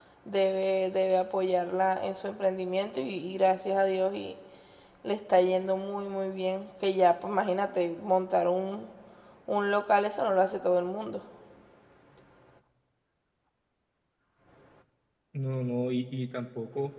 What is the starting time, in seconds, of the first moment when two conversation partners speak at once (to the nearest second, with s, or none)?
none